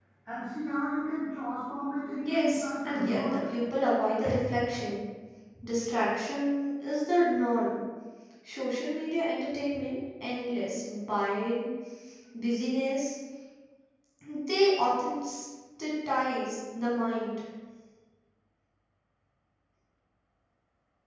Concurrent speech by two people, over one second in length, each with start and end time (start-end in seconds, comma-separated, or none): 2.1-3.4